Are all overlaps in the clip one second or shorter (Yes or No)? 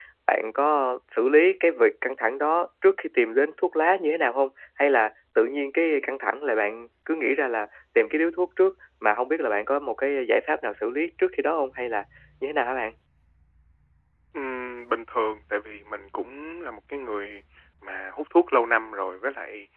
Yes